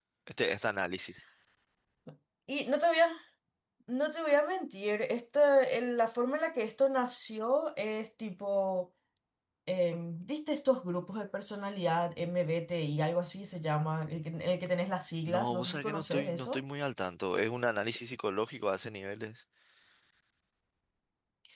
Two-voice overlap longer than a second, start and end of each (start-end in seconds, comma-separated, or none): 15.3-16.6